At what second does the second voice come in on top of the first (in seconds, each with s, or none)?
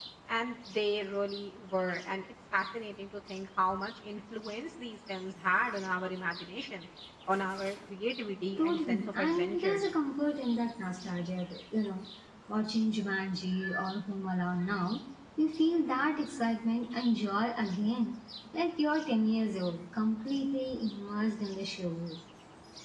8.6 s